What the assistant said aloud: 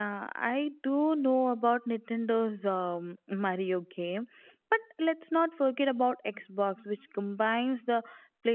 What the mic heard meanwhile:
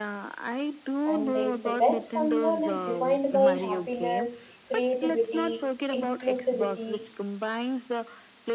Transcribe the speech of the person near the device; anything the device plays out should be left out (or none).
And if the best console is defined by happiness, creativity, inclusivity,